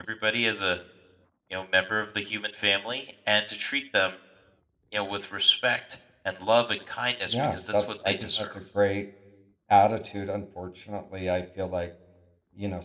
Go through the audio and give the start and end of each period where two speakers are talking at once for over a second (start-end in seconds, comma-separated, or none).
7.3-8.6